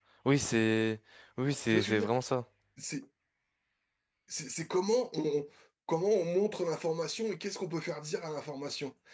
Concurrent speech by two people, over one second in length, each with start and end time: none

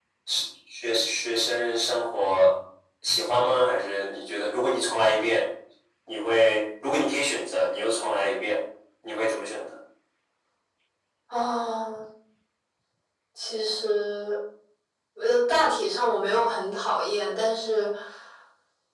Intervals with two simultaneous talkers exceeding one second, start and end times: none

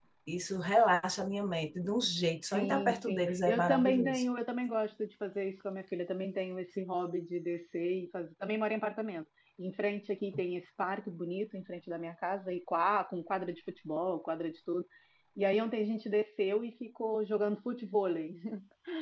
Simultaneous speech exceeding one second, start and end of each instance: 2.5-4.2

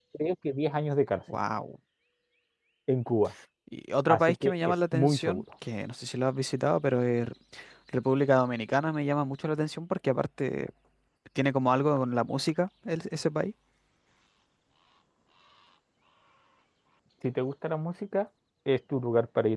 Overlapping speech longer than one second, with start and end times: 4.1-5.4

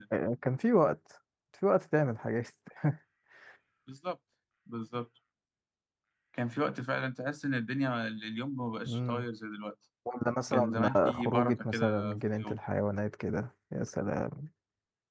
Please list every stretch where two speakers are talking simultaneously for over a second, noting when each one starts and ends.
10.5-12.6

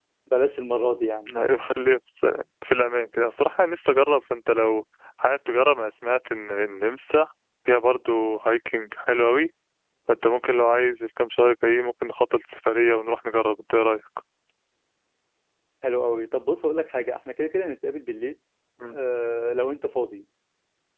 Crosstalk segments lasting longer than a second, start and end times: none

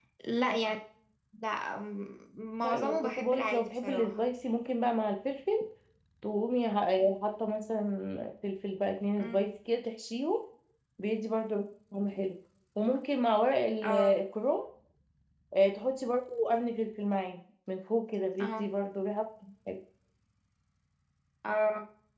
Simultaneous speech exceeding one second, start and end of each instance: 2.6-4.1

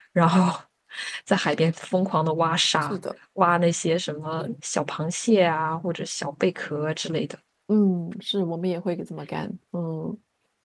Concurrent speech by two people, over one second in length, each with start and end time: none

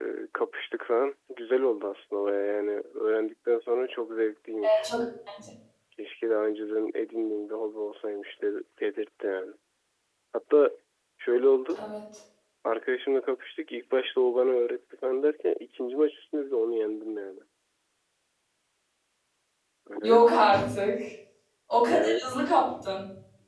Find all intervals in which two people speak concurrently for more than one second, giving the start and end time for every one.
none

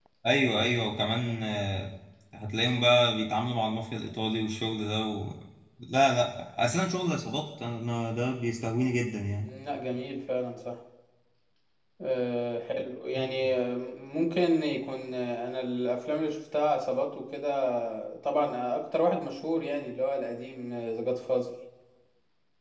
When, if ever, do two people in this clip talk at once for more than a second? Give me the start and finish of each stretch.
none

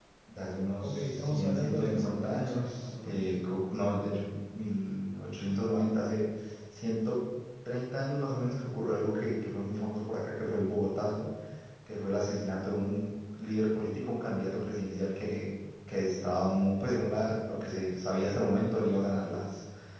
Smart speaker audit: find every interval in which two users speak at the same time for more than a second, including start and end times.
0.8-3.5

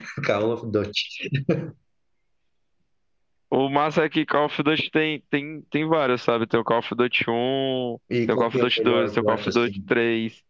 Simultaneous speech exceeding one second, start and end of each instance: 8.3-9.7

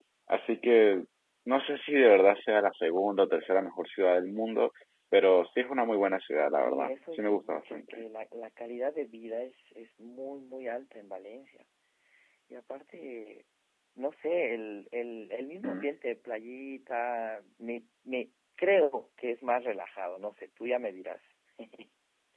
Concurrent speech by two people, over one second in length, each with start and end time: 6.5-8.0

